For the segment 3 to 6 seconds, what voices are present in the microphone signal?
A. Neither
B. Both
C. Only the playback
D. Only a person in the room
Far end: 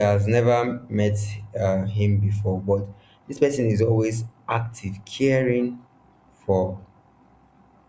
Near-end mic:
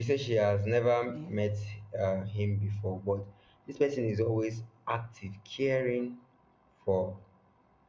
C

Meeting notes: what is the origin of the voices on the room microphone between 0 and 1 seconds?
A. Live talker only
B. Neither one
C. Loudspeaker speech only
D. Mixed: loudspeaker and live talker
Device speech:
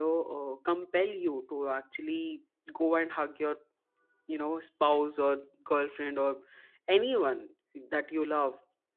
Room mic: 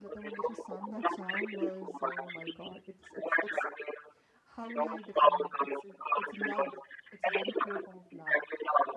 D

